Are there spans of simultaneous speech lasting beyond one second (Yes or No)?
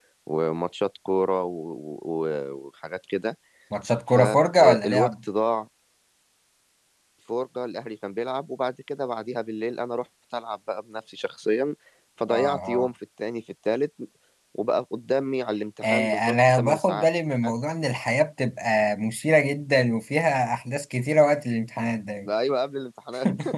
Yes